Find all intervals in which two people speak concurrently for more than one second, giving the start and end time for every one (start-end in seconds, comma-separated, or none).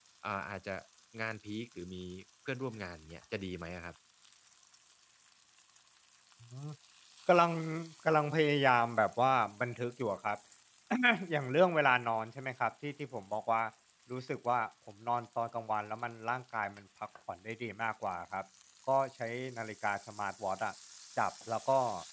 none